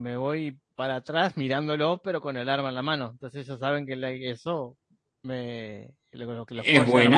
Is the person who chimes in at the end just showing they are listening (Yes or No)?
No